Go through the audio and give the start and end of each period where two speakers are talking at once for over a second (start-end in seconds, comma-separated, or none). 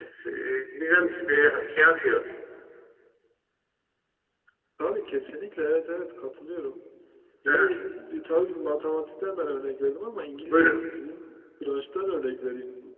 none